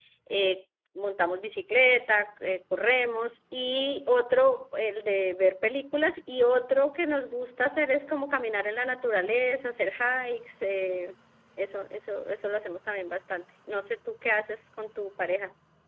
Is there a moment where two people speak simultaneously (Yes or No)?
No